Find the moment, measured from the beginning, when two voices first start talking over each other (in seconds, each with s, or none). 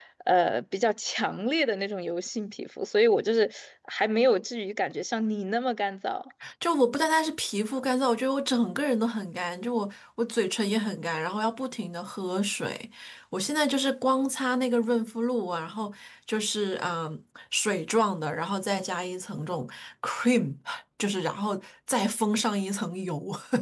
none